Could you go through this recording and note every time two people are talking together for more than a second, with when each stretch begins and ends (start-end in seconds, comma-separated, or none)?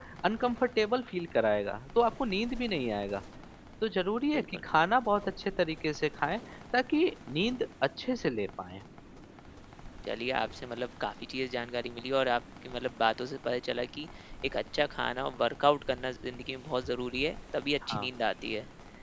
none